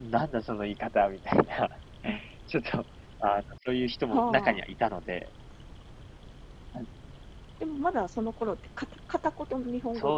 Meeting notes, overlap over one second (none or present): none